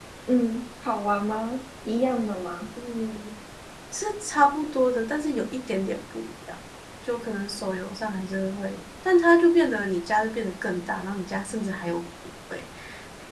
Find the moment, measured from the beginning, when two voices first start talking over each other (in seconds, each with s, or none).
none